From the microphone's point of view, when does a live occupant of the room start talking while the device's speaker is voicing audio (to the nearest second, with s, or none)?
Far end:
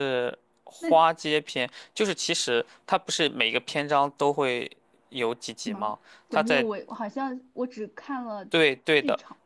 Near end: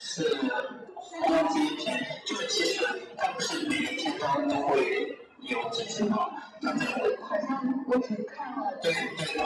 none